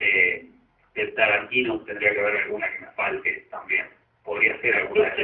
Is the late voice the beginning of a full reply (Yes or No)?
Yes